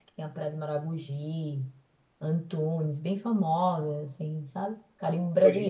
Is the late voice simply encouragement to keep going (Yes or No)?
No